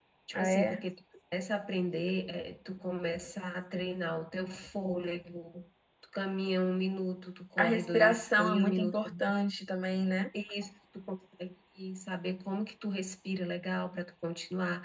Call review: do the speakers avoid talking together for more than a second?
No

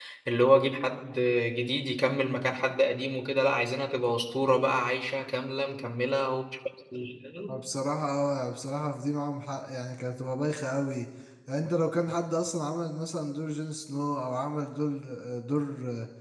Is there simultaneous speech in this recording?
No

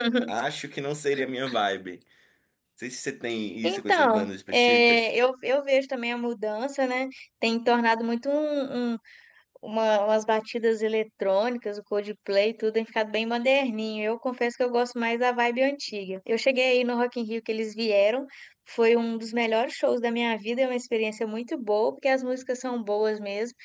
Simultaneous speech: Yes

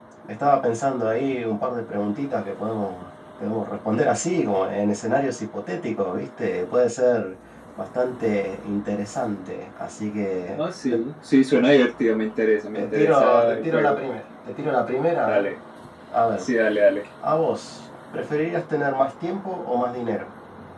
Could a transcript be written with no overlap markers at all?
No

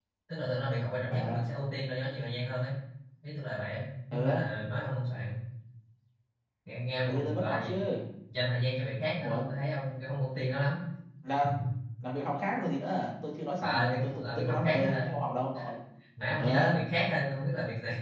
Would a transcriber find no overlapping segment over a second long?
No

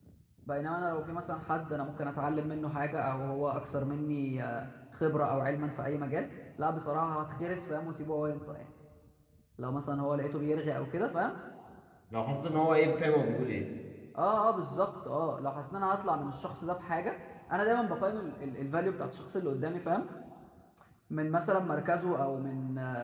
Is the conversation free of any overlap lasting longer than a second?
Yes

